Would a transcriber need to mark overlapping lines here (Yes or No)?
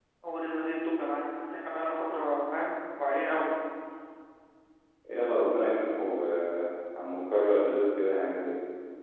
No